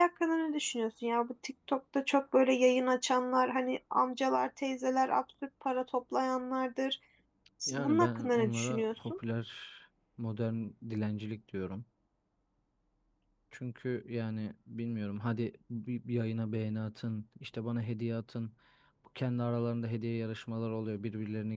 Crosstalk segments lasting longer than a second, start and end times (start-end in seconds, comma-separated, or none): 7.8-9.1